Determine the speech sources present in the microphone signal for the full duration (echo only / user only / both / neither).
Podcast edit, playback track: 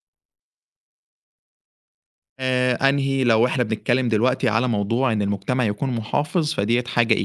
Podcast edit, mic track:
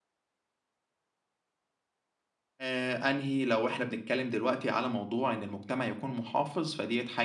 echo only